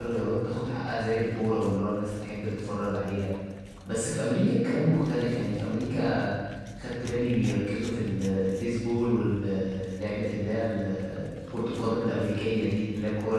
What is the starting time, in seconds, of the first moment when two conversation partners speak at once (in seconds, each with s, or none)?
none